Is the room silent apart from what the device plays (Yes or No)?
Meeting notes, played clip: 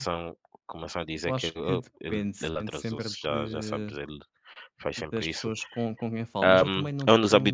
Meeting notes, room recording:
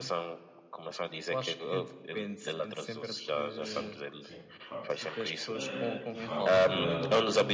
No